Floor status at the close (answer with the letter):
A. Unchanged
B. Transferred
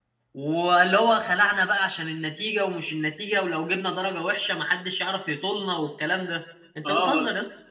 B